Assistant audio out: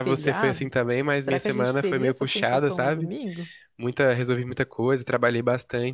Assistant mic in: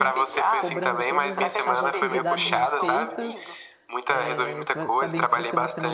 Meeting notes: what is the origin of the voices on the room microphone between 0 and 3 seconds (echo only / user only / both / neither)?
both